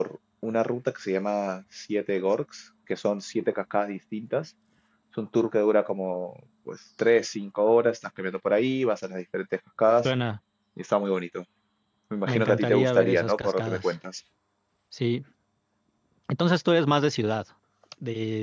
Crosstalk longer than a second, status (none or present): present